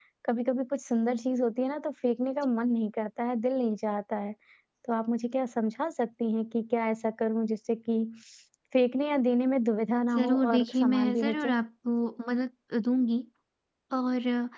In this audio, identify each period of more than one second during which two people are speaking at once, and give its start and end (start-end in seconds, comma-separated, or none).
10.2-11.6